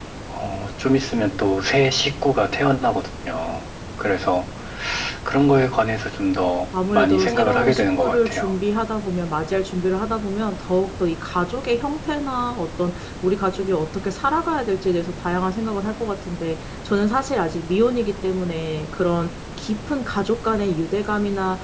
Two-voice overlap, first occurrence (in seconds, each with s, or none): 6.7 s